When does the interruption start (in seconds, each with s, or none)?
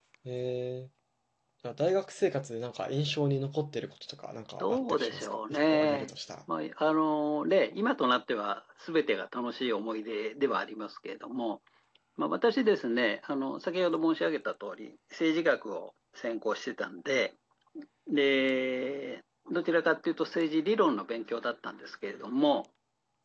4.6 s